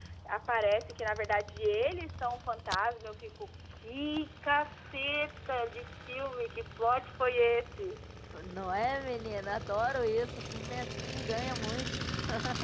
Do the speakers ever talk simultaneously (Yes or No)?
No